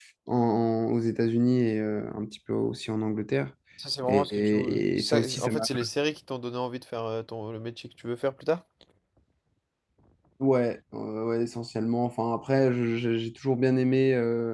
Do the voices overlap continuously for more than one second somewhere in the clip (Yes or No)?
Yes